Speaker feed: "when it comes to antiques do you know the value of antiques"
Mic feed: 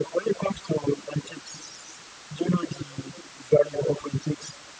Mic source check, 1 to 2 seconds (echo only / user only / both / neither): echo only